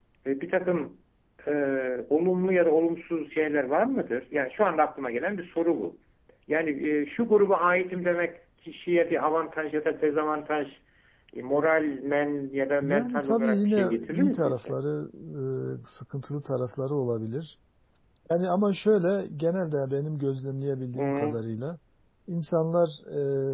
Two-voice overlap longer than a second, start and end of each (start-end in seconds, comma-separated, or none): 12.8-14.8